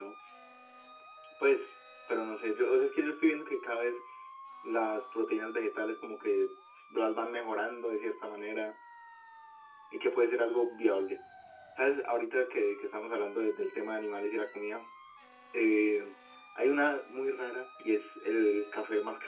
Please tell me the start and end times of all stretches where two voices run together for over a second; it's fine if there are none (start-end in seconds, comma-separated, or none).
none